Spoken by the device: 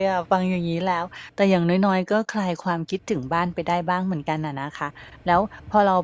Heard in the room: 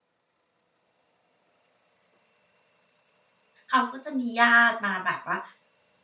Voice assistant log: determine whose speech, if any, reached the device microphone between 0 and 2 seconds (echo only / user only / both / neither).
neither